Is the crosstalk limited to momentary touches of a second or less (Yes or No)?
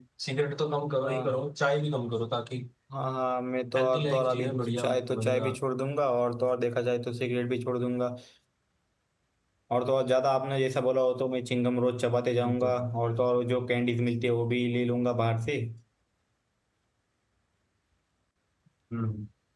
No